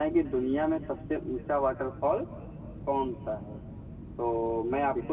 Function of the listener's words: listening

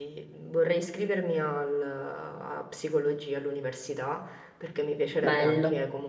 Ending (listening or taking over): listening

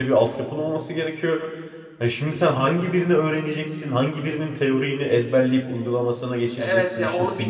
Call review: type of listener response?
taking over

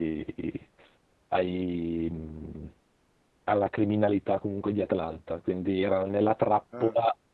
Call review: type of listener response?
listening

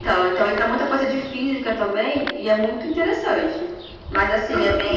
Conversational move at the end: listening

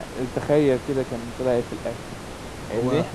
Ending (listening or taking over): listening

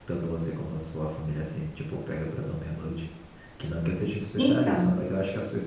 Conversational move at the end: listening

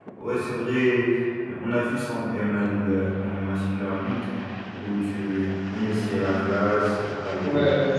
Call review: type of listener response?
taking over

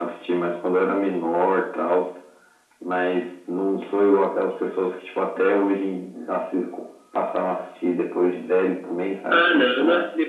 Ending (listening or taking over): taking over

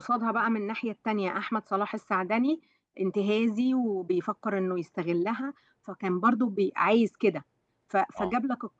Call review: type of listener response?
listening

